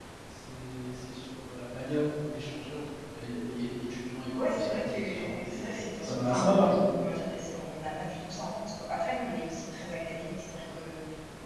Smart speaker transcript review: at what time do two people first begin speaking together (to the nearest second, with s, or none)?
4 s